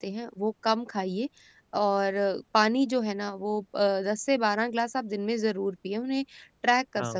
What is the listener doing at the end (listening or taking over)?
listening